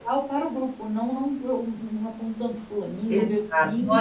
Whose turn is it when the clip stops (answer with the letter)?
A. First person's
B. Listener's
B